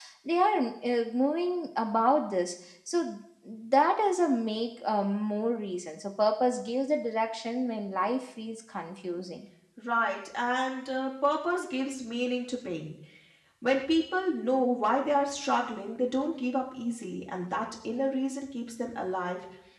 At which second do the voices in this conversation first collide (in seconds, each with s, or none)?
none